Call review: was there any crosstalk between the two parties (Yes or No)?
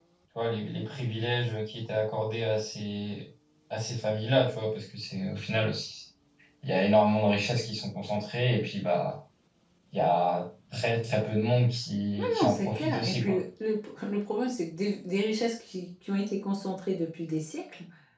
Yes